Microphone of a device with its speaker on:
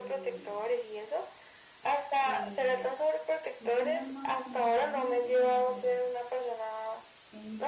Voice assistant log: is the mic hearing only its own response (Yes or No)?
No